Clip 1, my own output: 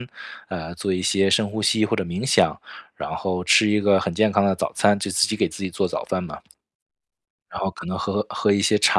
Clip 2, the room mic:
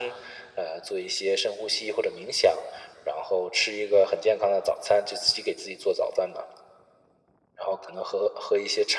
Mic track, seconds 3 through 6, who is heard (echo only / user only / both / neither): echo only